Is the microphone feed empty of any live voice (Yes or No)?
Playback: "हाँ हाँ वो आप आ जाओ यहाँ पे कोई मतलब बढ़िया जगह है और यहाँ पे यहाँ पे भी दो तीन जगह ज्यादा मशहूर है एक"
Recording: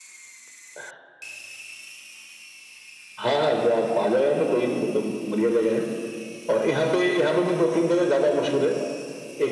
Yes